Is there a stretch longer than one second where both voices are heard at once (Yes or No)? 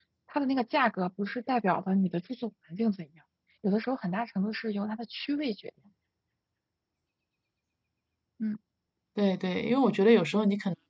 No